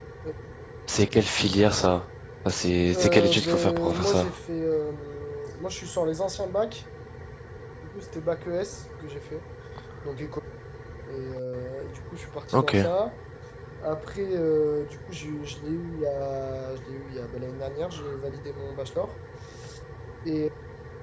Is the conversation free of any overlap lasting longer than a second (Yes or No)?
No